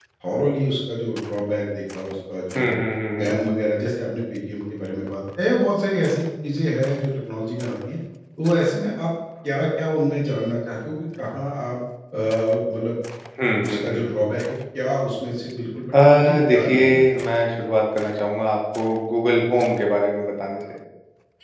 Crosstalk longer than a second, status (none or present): present